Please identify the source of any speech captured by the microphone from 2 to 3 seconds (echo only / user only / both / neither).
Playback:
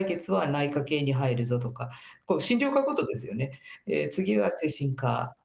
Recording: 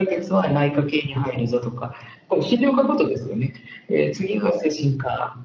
both